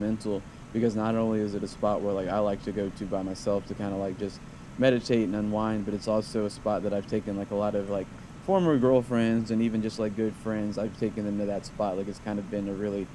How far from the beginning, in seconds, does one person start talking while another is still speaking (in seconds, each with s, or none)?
none